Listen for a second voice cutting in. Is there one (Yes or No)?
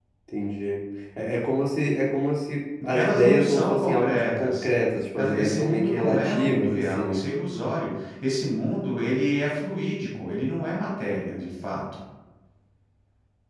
Yes